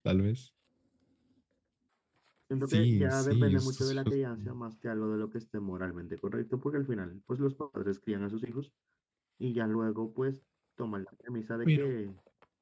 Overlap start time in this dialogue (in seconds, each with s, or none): 2.7 s